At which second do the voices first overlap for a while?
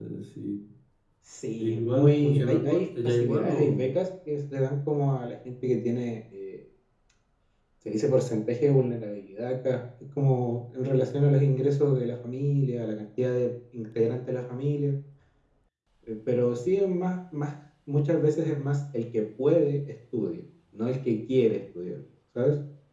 1.6 s

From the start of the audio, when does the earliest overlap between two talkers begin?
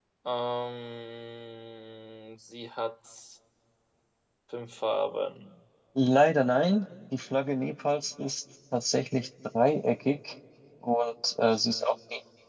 none

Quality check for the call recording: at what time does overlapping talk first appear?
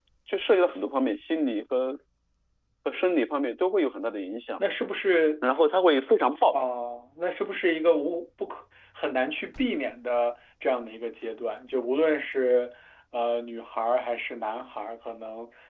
none

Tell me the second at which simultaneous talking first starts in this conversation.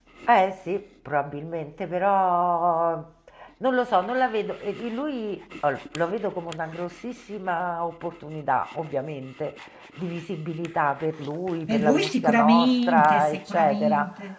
11.7 s

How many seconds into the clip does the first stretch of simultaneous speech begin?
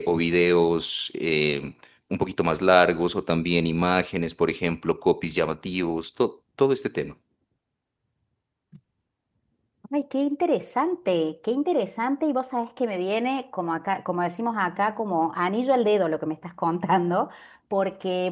none

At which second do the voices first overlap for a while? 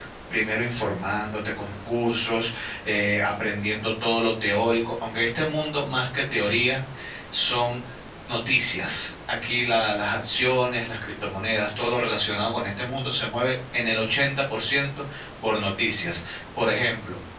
none

